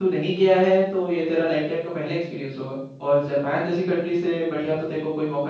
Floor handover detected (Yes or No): No